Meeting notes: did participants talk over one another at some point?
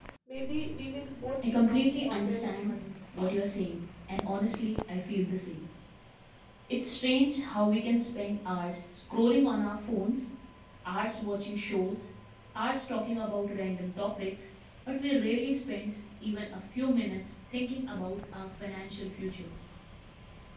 Yes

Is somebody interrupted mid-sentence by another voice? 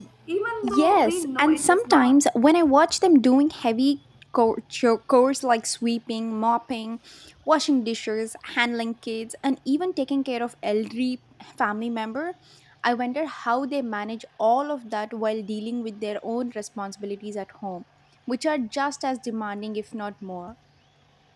Yes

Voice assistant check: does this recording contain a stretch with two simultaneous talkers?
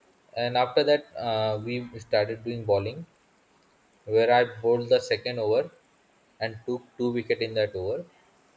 No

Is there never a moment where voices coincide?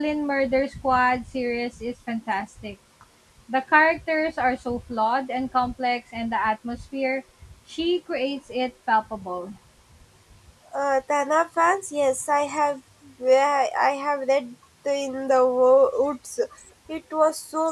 Yes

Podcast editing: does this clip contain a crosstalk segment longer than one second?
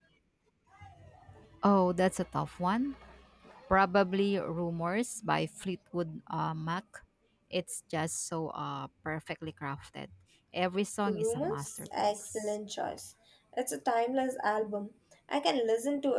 Yes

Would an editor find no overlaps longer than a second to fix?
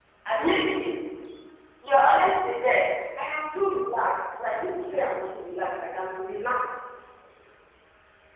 Yes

